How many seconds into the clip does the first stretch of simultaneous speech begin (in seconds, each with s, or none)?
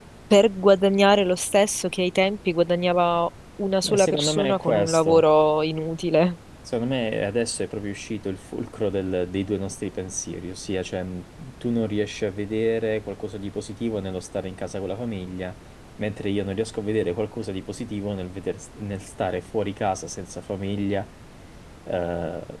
3.8 s